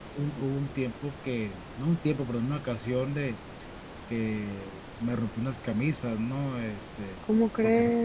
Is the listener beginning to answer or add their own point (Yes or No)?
No